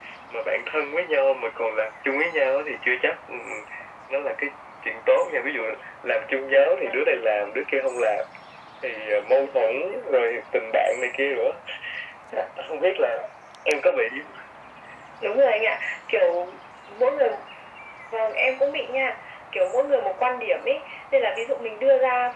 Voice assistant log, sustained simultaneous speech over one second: none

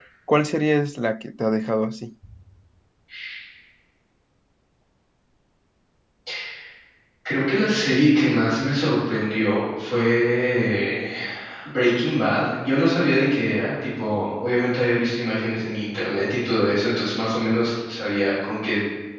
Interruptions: none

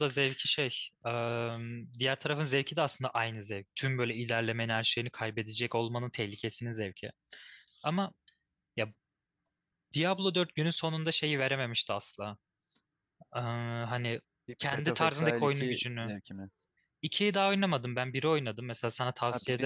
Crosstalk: present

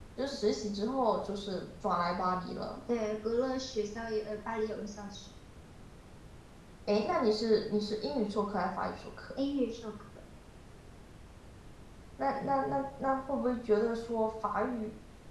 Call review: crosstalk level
none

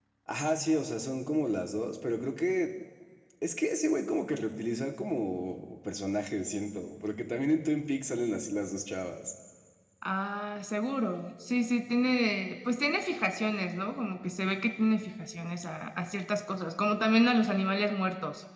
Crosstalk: none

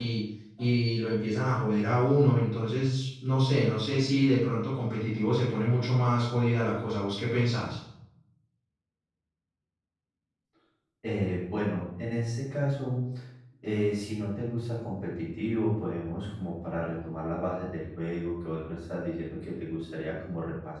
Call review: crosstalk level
none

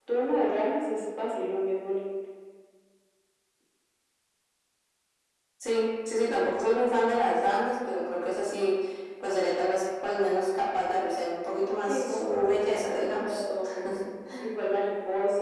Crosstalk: present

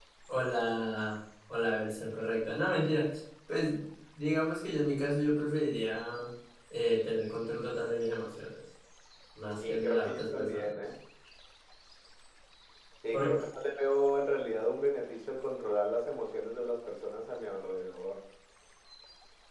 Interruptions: present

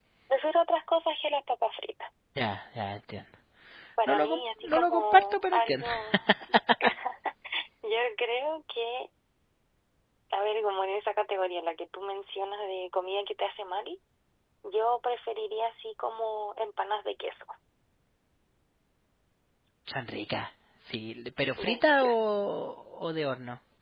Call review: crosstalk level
present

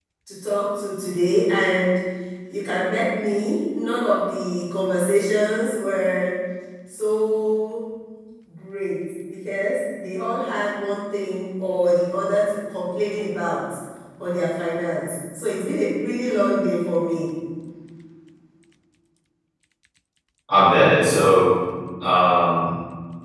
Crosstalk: none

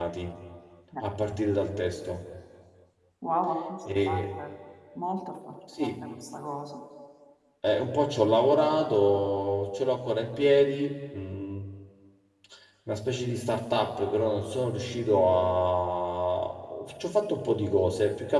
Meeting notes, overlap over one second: none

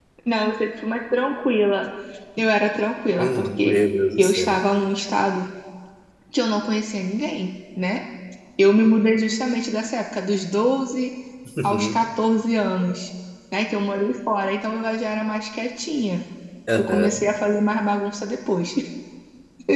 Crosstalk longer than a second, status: none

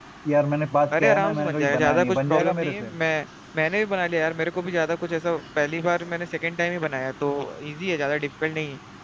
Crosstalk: present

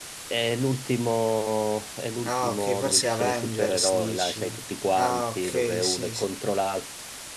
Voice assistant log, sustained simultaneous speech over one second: present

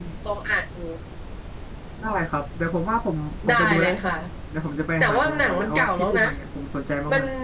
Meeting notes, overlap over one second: present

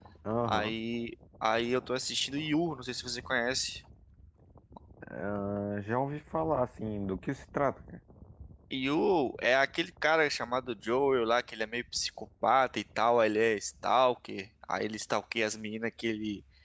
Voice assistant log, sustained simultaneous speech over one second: none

